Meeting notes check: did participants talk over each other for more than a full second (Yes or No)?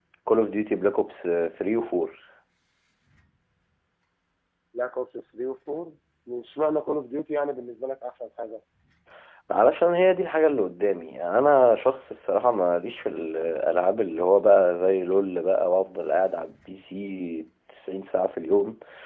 No